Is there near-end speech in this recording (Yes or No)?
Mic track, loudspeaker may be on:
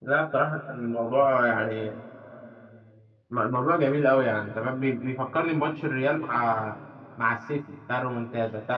Yes